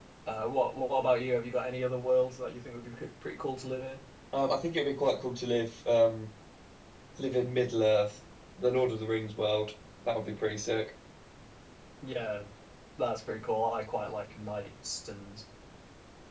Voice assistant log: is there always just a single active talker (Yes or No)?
Yes